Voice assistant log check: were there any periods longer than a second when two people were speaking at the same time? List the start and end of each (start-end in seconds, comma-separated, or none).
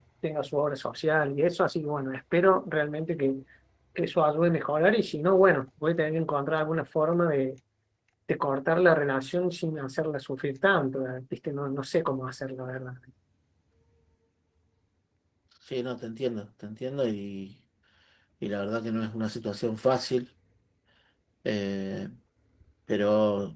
none